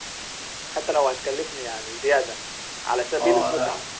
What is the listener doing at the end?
taking over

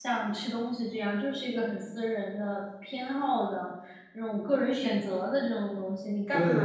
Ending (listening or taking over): listening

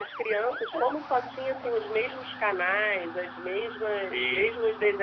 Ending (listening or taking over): listening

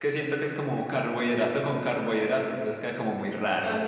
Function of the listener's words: taking over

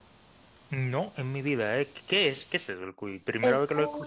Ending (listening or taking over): taking over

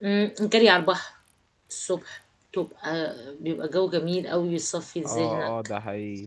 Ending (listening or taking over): taking over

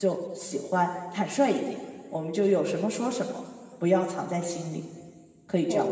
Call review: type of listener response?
taking over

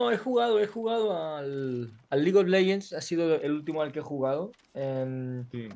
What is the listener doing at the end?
listening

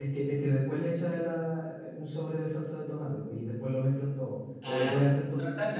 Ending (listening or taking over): taking over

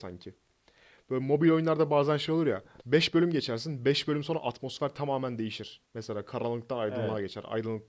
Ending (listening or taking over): listening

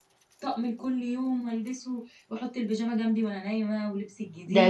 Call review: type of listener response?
taking over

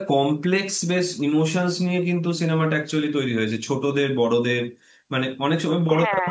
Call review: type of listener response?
listening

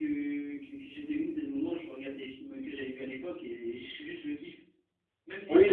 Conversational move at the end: taking over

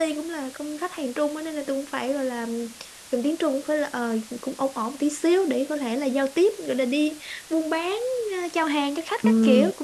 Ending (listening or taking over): taking over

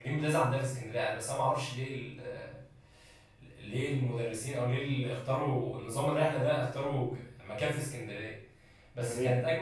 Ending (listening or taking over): listening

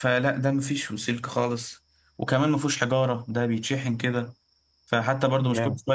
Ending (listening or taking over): listening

